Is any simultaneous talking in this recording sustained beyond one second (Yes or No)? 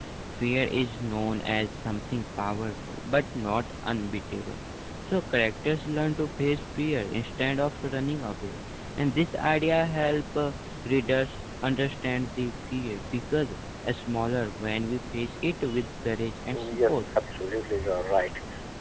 No